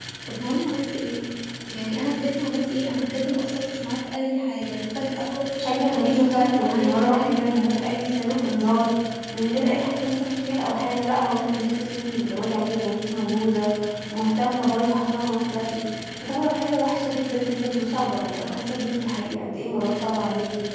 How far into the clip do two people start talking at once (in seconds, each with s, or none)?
5.6 s